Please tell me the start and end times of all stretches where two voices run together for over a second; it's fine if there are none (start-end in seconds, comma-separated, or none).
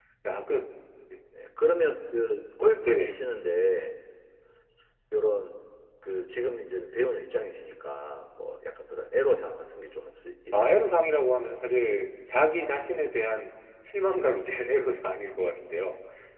none